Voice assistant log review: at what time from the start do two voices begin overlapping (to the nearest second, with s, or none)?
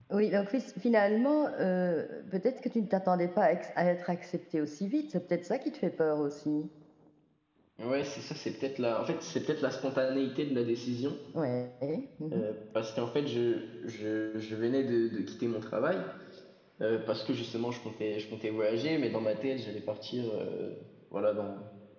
none